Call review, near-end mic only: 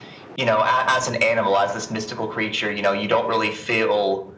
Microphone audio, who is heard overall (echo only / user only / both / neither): echo only